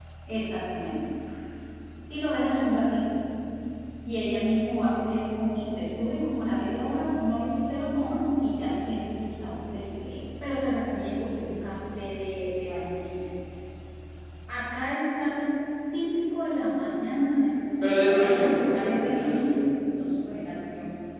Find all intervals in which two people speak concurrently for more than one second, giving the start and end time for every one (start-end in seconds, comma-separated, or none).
17.8-19.5